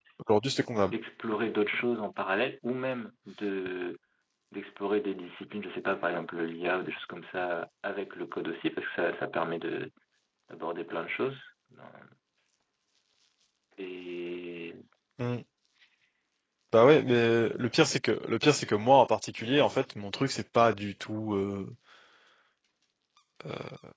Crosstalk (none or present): none